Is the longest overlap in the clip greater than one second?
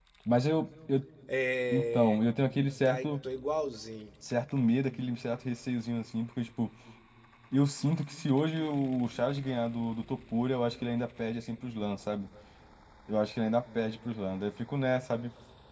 No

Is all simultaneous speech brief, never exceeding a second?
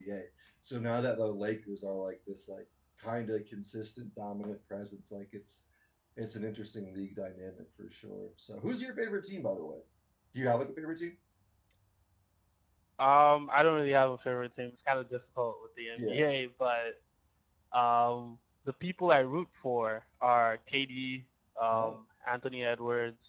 Yes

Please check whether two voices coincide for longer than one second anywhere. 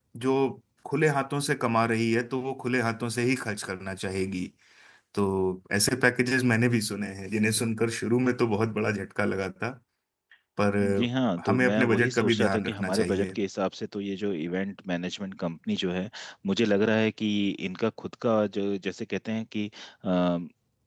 Yes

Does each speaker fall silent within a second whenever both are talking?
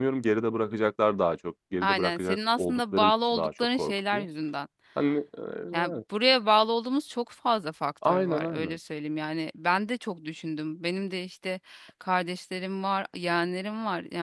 No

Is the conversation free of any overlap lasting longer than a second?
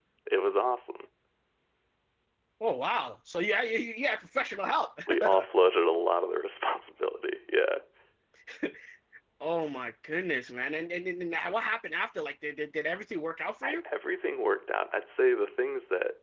Yes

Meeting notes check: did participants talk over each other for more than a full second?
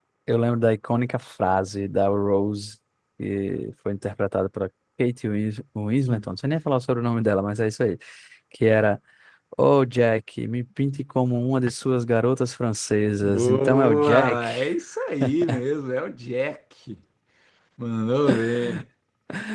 Yes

